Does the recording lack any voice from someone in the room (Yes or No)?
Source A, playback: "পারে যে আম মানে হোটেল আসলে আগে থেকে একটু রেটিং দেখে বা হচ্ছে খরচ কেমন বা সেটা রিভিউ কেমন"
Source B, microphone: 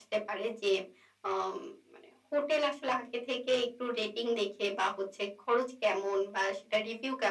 Yes